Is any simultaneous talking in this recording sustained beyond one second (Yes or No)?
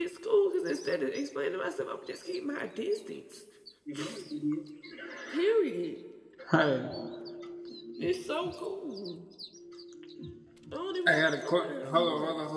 Yes